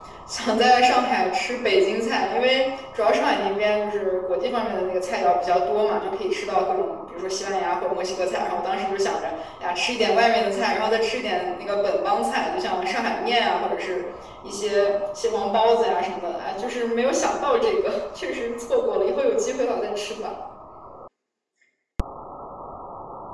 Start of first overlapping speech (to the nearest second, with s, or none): none